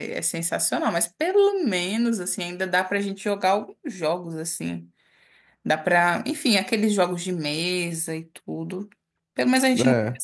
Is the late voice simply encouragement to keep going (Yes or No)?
Yes